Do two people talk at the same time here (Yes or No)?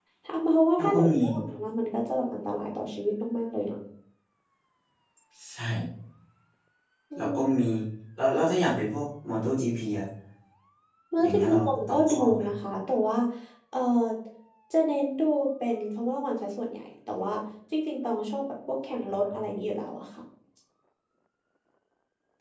Yes